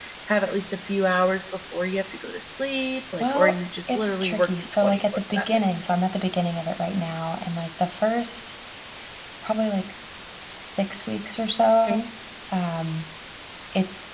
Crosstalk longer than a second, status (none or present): present